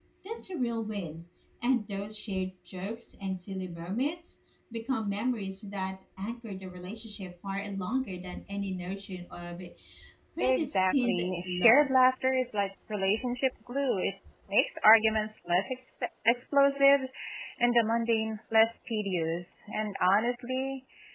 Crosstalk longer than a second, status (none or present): present